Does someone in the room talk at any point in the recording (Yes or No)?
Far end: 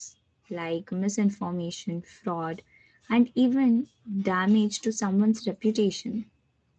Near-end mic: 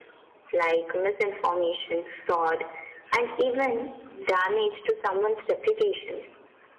No